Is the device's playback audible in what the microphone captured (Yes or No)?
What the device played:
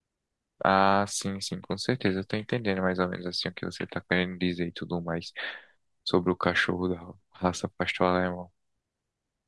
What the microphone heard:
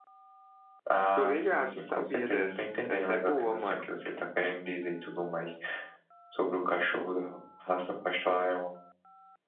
Yes